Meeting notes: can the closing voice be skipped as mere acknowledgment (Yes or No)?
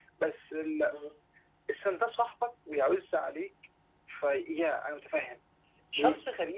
Yes